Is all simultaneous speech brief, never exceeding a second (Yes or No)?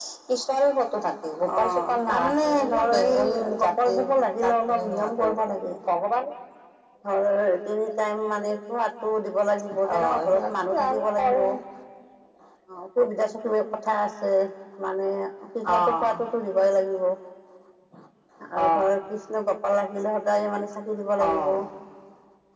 No